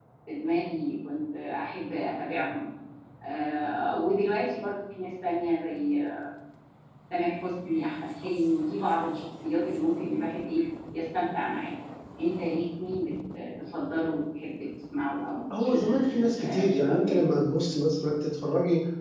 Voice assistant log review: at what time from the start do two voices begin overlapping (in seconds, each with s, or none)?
15.5 s